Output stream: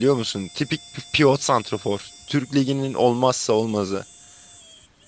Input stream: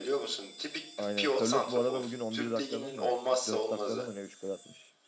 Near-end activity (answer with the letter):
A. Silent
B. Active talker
B